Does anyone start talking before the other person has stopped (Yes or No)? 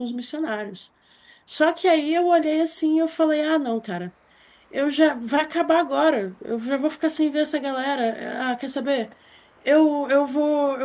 No